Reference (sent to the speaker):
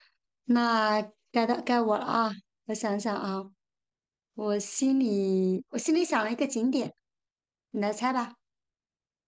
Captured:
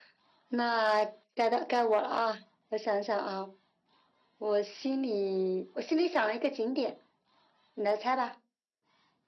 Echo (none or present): present